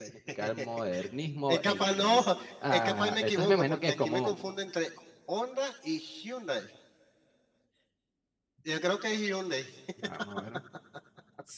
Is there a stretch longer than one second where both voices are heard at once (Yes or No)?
Yes